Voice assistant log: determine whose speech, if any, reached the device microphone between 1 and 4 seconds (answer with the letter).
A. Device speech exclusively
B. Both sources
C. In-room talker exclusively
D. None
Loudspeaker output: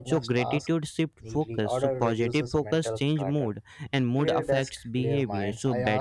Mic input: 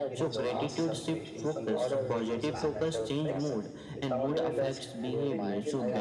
B